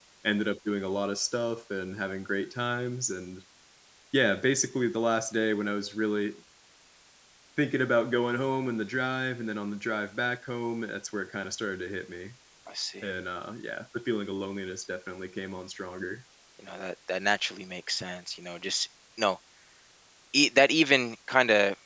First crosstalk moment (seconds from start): none

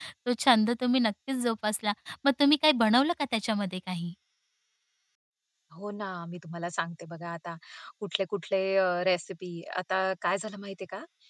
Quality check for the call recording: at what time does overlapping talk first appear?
none

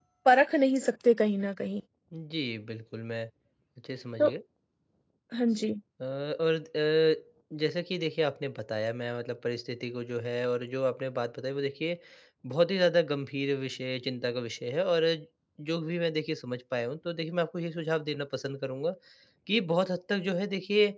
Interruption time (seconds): none

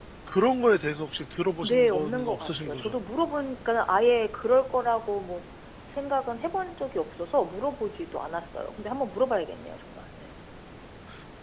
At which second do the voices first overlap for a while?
1.6 s

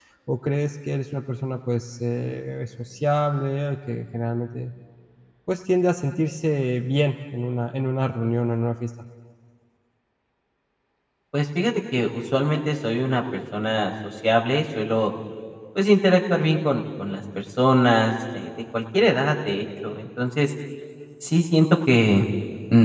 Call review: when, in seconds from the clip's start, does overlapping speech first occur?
none

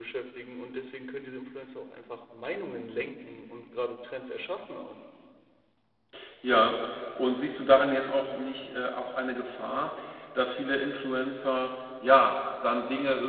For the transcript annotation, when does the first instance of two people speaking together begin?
none

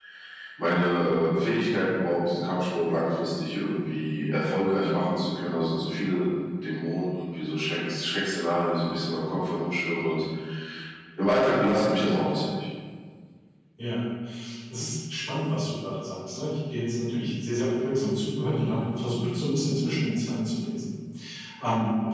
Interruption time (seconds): none

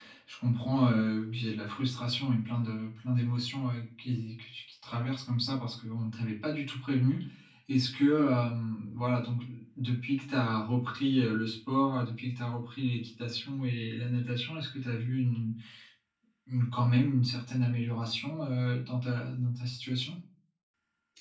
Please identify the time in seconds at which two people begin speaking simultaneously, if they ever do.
none

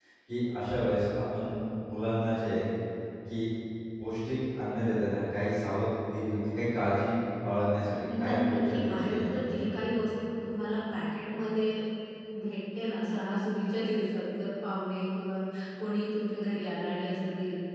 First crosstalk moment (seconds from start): 8.0 s

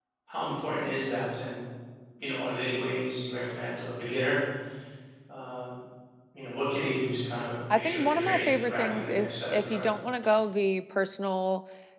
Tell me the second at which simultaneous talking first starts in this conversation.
7.7 s

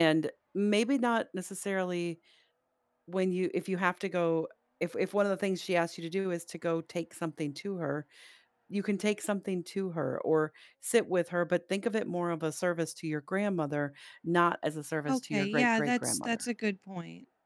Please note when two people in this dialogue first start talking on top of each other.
15.1 s

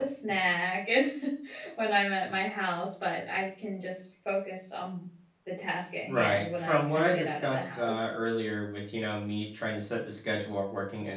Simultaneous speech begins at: 6.1 s

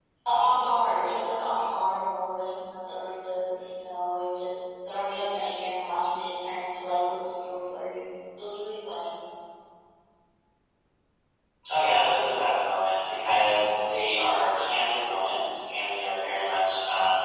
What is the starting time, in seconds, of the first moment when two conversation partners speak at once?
none

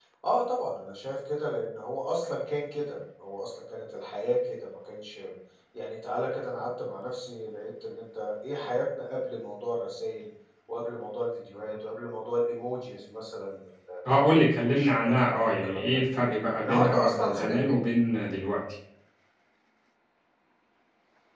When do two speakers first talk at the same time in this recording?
14.1 s

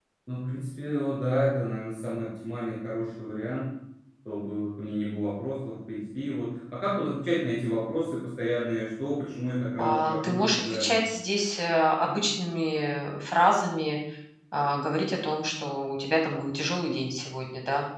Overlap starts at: 9.8 s

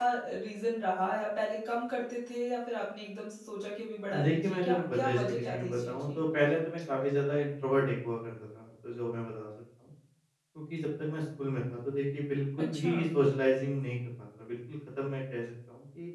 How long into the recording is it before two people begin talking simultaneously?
4.2 s

